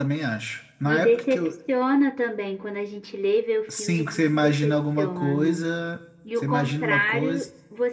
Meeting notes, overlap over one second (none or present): present